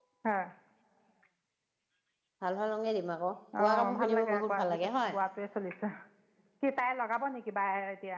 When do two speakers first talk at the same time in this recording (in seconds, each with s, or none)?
3.5 s